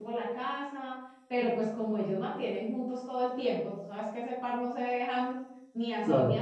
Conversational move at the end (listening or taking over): taking over